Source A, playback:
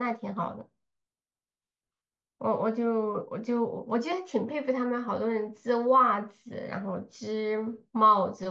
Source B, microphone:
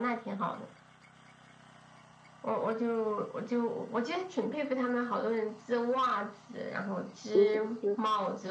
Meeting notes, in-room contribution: present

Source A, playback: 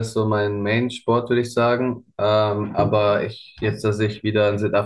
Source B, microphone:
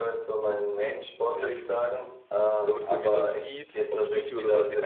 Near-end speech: present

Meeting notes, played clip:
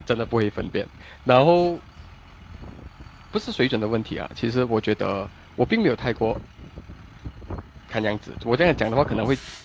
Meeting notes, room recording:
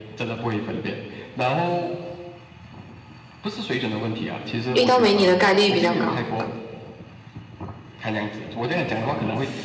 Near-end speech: present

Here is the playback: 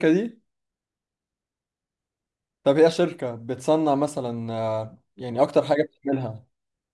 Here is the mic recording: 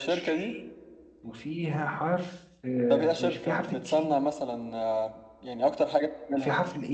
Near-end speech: present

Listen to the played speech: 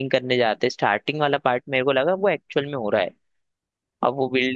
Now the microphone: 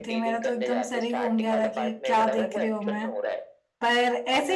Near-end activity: present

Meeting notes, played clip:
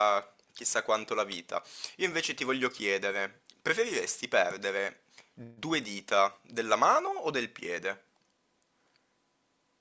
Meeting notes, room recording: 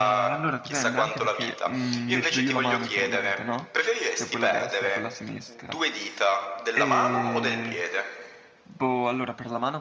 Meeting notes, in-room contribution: present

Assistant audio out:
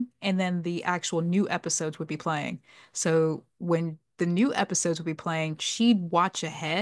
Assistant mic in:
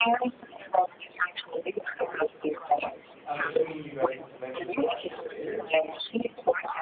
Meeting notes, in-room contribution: present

